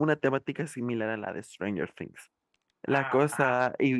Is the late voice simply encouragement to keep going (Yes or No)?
Yes